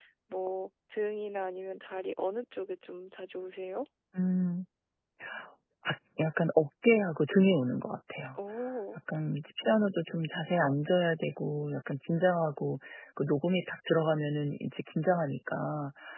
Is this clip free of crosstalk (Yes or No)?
Yes